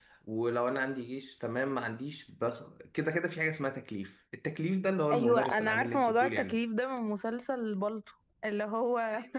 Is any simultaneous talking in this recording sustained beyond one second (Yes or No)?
Yes